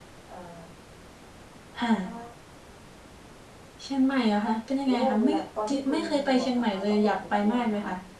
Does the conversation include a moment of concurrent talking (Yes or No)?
Yes